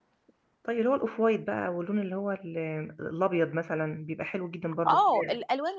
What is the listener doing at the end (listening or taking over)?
taking over